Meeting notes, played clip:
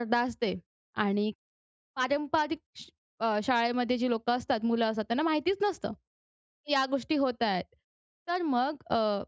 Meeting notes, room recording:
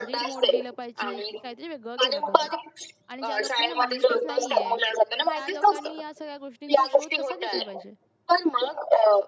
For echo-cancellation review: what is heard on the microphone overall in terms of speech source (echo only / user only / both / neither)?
both